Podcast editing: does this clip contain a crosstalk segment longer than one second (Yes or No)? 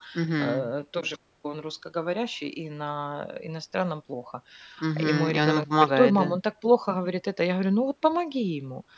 Yes